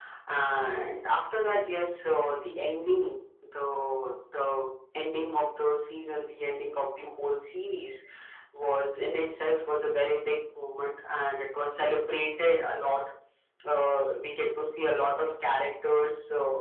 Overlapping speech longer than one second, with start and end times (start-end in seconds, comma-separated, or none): none